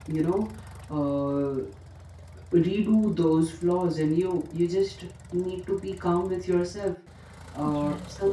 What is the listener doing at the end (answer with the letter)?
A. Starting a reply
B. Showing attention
B